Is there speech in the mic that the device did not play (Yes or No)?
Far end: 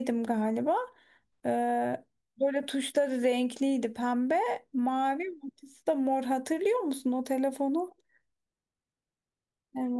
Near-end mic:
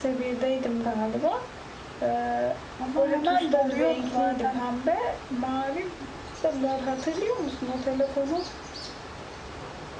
Yes